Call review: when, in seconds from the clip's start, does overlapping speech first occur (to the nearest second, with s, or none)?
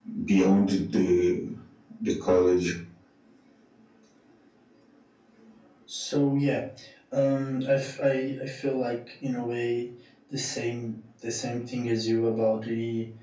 none